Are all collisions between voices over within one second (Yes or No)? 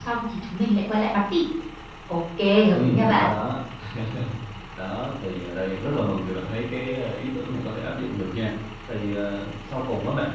Yes